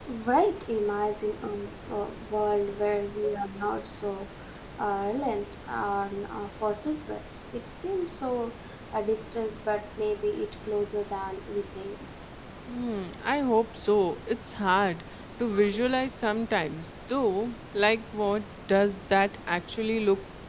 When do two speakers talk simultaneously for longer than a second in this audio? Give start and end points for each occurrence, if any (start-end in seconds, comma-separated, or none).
none